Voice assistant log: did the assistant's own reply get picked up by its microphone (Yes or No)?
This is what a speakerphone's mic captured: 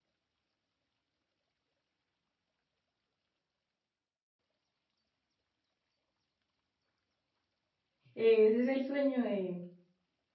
No